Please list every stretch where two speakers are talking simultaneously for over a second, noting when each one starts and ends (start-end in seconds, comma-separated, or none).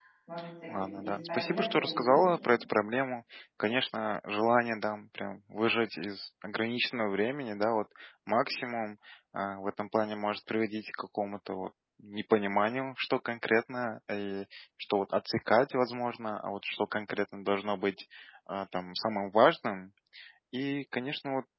0.7-2.5